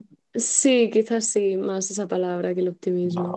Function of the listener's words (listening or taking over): taking over